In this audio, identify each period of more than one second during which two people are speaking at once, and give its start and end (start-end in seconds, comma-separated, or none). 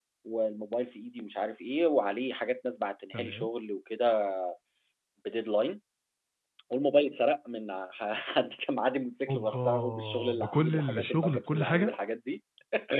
9.3-11.9